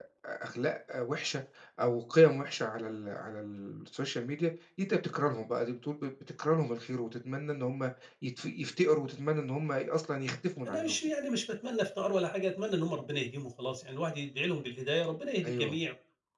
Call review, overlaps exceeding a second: none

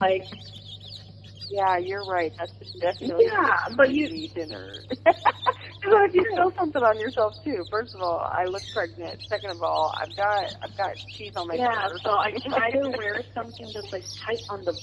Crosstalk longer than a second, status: present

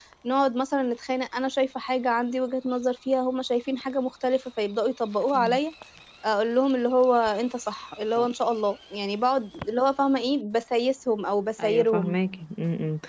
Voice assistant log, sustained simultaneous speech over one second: none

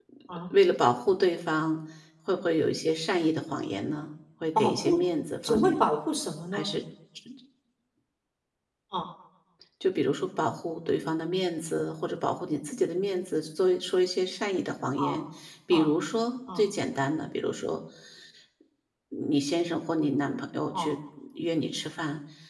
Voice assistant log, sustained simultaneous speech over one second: none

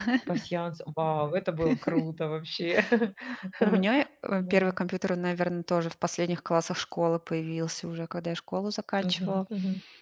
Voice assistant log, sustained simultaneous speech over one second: none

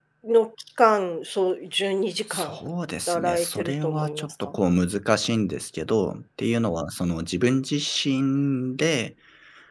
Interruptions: present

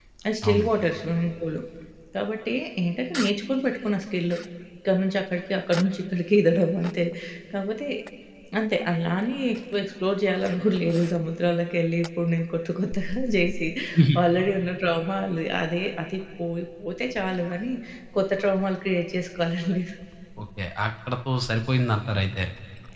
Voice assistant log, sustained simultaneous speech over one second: none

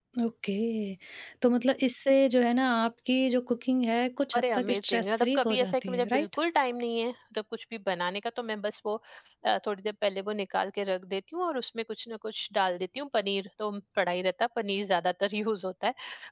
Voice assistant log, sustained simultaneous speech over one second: present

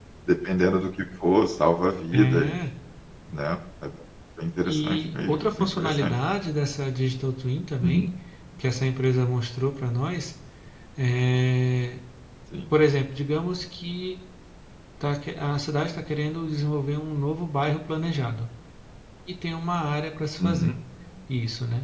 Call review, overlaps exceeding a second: present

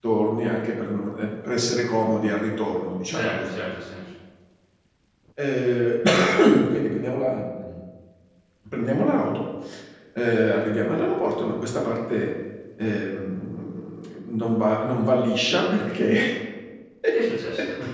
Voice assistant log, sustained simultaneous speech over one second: none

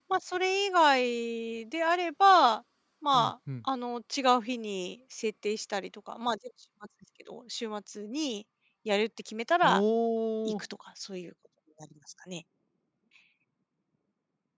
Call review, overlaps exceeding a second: none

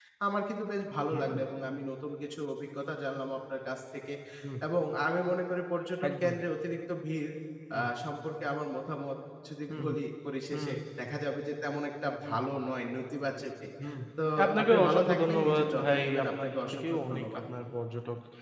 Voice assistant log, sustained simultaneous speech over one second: present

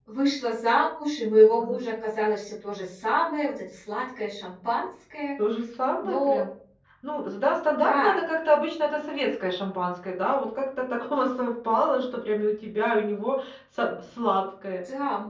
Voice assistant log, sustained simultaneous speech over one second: none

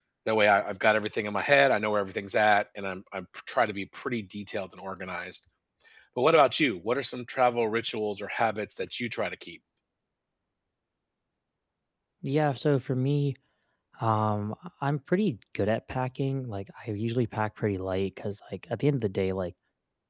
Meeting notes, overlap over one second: none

